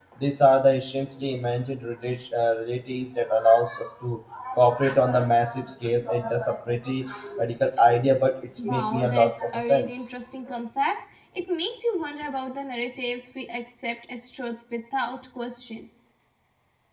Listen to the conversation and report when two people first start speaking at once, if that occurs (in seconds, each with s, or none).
8.6 s